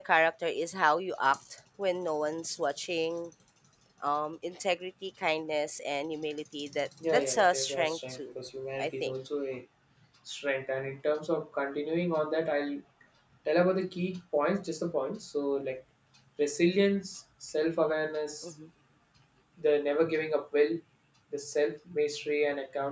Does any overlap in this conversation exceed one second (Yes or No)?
Yes